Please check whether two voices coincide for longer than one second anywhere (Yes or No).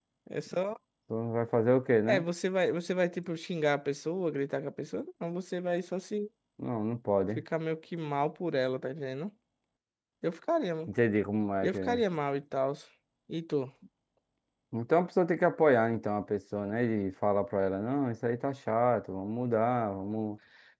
No